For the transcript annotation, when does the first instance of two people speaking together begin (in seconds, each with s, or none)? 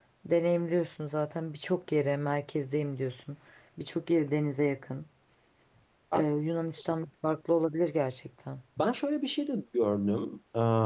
none